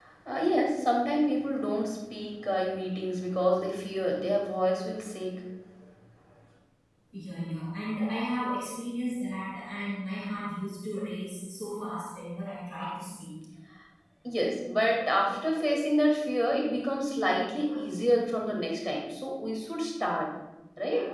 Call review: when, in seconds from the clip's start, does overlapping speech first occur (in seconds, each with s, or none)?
none